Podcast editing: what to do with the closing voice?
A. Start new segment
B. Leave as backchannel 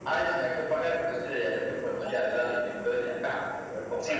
A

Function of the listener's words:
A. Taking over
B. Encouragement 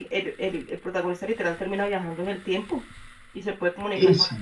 B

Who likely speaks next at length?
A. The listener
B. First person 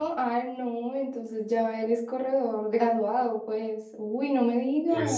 A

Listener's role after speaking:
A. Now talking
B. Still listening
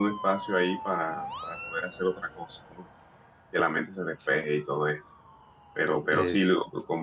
B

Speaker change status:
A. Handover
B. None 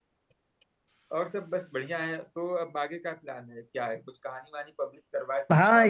A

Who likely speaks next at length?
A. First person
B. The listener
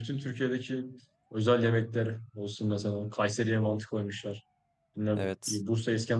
A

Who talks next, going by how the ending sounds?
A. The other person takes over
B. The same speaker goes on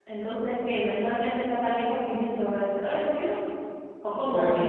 B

